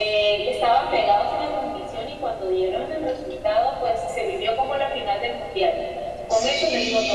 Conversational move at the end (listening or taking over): taking over